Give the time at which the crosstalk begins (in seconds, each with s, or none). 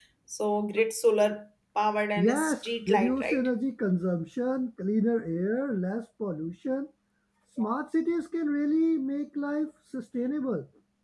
2.2 s